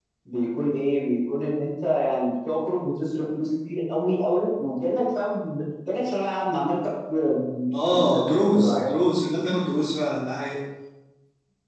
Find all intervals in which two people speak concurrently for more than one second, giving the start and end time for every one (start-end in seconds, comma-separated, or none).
7.9-9.2